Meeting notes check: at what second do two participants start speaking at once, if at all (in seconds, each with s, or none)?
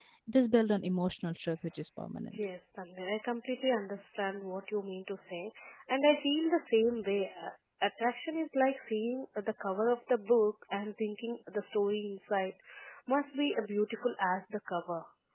none